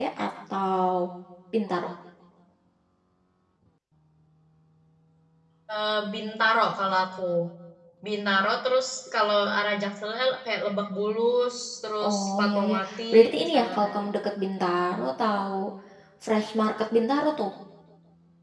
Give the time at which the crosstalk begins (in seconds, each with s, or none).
12.0 s